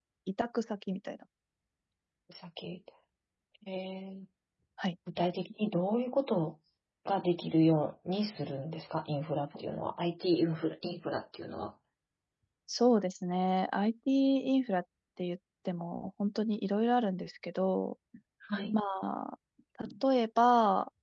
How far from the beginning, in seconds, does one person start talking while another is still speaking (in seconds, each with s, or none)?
none